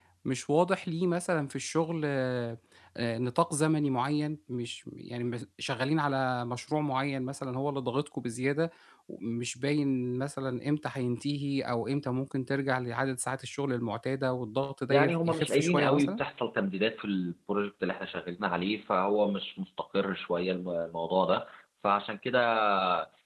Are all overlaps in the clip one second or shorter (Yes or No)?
No